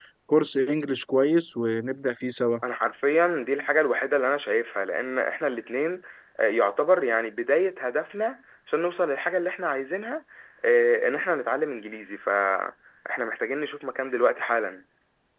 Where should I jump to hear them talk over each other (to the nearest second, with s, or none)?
none